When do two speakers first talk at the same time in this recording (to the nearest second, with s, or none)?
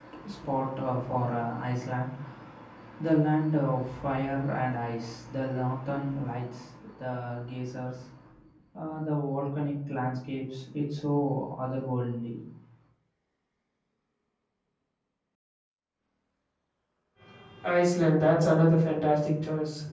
none